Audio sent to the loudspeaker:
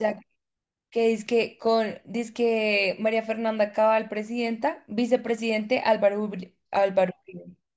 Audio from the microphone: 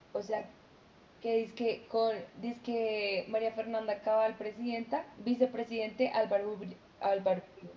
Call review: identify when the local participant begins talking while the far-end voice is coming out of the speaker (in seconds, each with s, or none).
none